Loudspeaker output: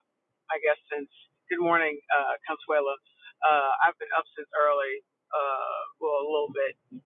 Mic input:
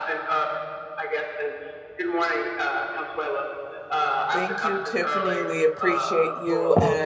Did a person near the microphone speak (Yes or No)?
Yes